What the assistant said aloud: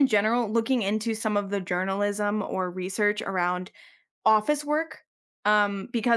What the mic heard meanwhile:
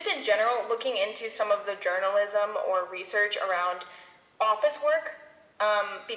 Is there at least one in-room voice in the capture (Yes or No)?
No